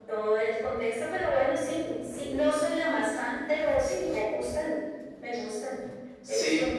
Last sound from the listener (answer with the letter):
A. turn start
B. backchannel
B